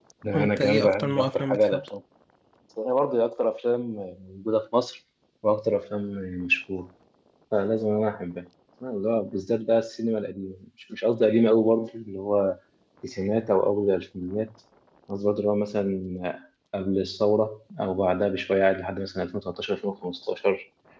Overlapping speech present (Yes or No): Yes